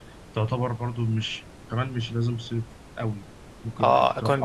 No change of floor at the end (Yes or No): No